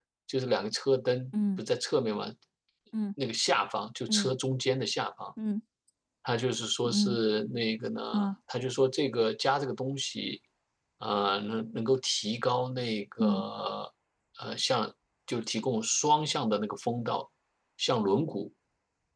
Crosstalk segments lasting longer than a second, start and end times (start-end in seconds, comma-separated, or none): none